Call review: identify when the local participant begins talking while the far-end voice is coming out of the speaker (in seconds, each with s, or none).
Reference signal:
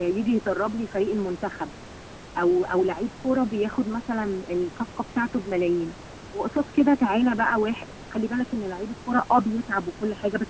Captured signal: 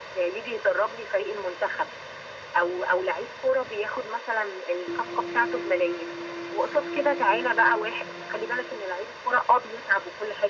none